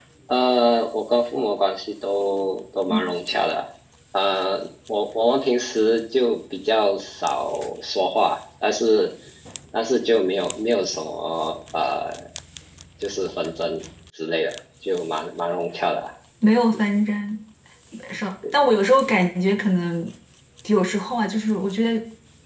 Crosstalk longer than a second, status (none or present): none